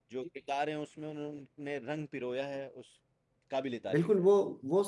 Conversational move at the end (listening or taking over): taking over